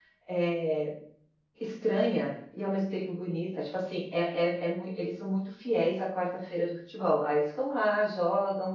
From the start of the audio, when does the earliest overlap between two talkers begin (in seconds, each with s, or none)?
none